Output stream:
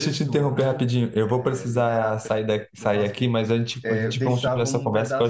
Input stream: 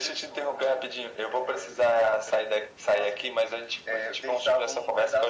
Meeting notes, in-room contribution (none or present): none